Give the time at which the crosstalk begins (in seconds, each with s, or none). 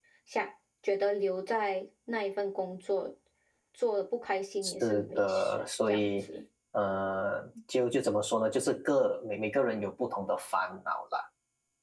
4.6 s